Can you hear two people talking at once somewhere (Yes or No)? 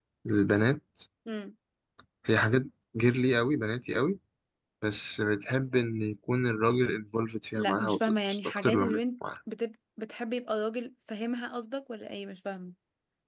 Yes